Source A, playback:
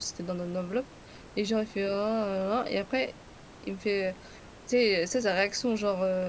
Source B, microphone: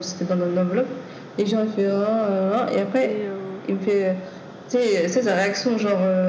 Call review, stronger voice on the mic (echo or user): echo